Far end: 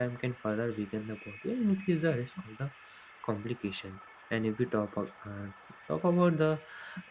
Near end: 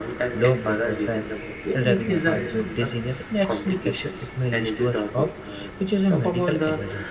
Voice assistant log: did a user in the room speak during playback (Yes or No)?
Yes